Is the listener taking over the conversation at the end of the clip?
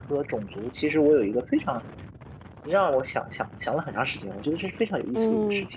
Yes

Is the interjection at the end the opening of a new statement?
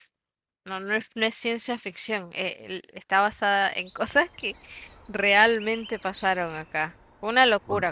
Yes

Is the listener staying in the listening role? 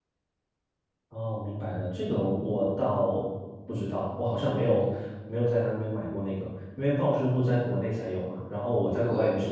Yes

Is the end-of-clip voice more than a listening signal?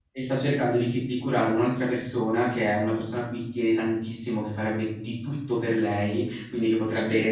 No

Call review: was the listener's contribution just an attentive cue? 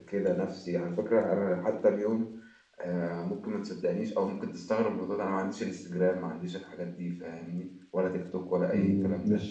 No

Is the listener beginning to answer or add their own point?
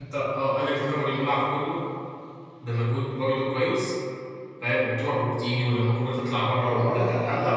Yes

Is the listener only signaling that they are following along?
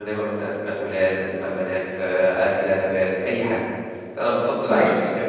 Yes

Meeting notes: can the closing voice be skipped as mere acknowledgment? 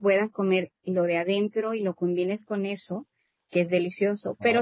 Yes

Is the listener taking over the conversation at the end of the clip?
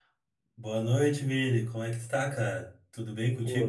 Yes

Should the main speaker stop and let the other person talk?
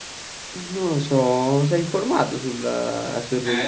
Yes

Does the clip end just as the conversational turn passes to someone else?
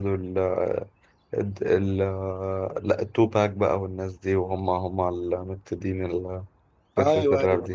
Yes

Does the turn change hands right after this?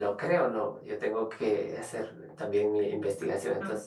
No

